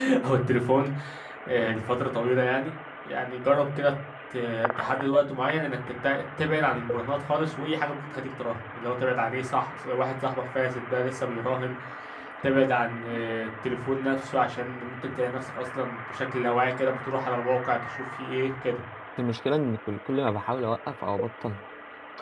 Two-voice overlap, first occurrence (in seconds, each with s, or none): none